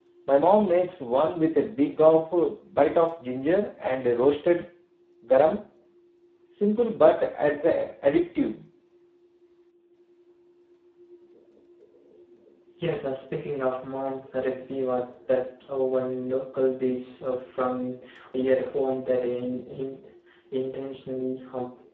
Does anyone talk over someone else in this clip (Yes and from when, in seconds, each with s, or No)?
No